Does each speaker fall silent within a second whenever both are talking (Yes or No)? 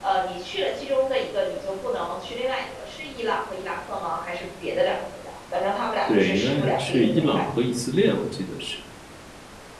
No